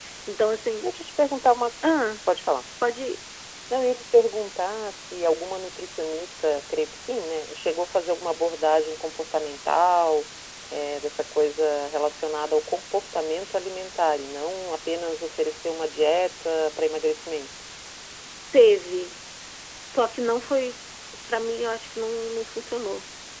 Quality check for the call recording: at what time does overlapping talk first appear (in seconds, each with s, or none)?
none